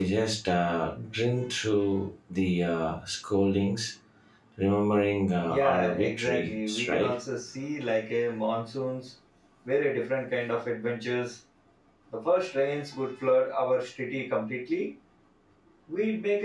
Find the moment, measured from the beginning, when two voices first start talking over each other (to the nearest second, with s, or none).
5 s